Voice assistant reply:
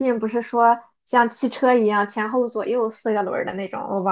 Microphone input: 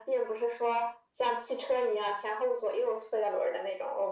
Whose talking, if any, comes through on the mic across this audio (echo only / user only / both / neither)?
echo only